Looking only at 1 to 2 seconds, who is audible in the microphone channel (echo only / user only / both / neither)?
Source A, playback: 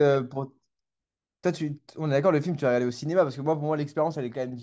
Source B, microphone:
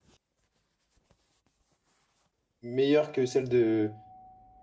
neither